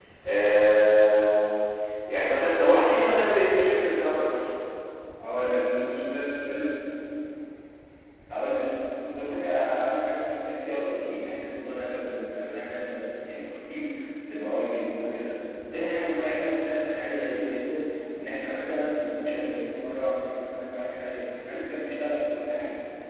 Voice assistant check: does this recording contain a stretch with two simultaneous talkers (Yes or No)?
No